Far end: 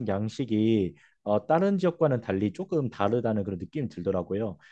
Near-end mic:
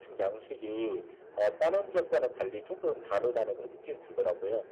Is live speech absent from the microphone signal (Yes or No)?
Yes